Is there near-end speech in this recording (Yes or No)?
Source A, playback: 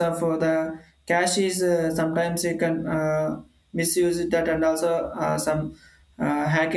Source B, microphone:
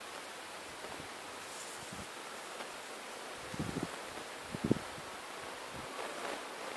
No